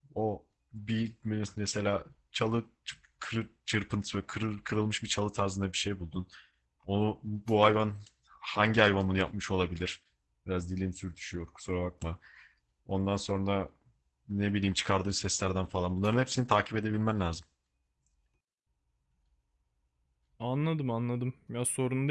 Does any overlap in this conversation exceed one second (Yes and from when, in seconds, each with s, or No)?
No